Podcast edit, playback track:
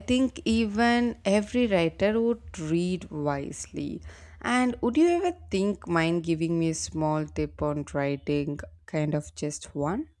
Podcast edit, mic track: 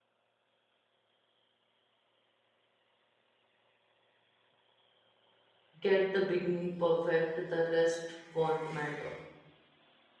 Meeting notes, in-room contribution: present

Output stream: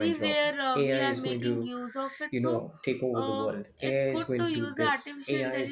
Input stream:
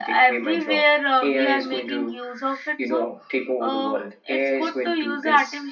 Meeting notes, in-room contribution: none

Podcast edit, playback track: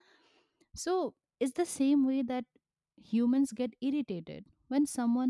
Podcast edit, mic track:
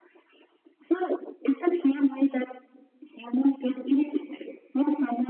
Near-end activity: none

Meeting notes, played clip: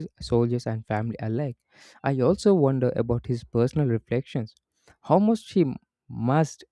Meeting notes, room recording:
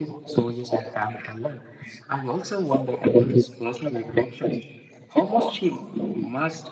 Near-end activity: none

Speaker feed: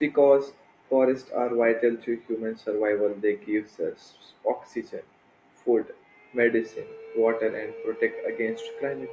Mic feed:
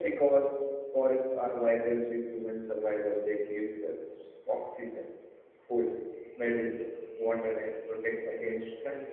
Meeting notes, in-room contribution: none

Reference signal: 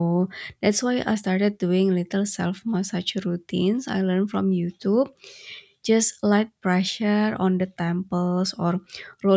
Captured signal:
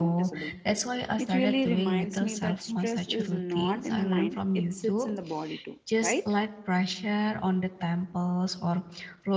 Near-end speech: present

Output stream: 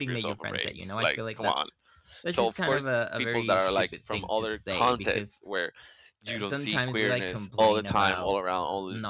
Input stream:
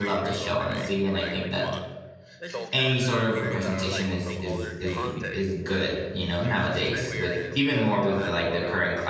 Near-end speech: present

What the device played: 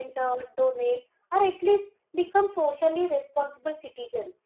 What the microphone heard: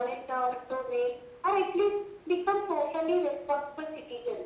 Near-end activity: none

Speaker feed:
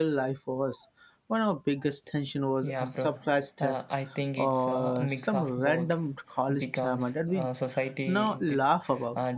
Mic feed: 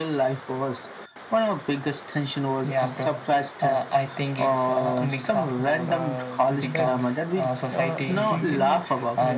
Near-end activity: present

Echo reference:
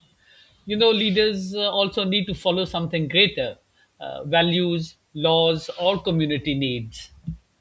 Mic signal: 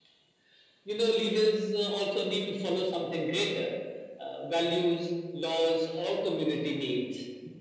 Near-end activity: none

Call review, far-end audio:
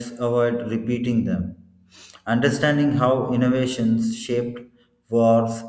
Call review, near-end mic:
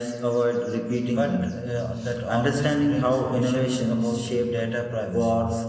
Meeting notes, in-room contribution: present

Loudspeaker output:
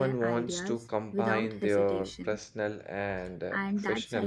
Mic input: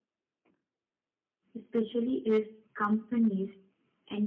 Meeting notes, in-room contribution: present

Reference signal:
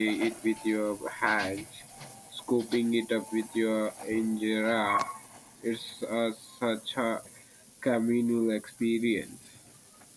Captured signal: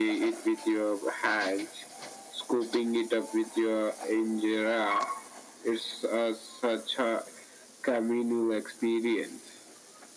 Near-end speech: none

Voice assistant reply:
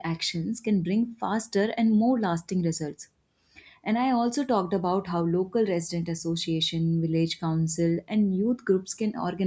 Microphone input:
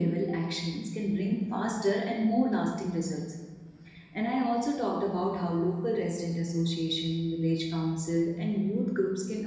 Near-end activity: none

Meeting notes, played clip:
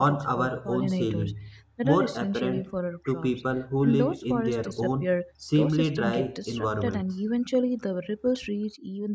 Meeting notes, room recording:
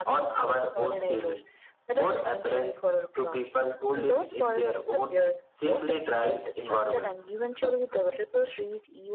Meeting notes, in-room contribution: none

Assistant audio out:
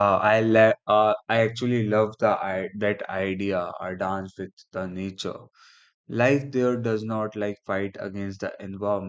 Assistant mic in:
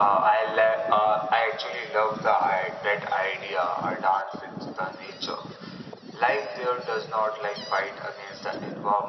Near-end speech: none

